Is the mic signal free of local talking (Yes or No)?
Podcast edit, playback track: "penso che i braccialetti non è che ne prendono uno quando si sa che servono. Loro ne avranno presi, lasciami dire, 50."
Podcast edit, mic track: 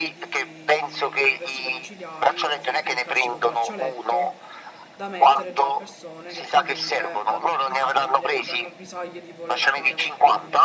No